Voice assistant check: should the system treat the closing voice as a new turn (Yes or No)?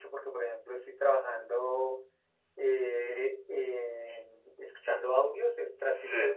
No